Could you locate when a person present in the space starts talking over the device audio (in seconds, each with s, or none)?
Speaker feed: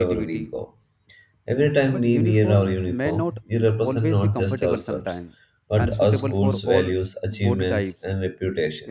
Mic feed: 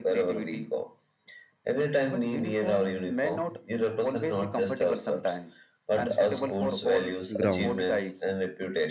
7.4 s